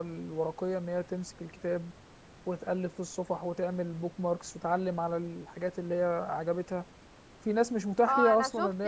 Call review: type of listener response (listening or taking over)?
taking over